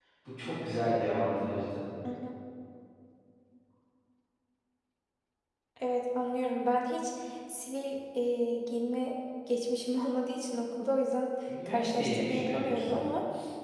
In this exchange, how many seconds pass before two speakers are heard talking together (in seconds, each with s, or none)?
11.5 s